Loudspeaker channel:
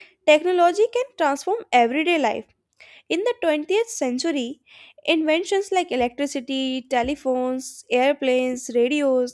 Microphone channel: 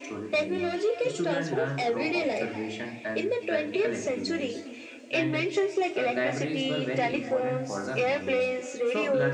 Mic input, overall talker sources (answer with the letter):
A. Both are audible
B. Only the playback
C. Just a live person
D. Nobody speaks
A